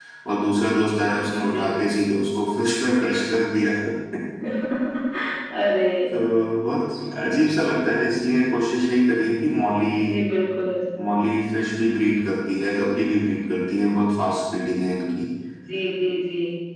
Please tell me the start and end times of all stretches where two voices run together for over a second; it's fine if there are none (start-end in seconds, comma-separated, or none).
none